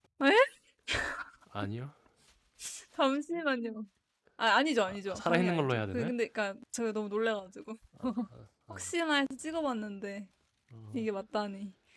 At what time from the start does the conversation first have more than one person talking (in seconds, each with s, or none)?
4.9 s